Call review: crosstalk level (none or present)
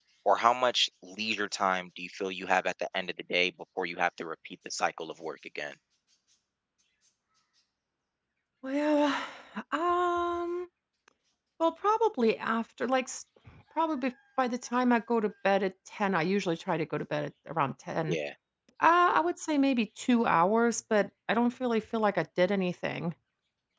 none